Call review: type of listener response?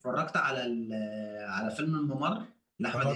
taking over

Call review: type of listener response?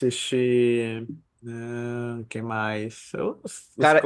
taking over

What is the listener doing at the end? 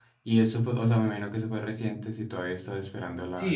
taking over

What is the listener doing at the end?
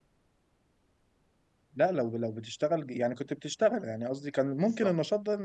listening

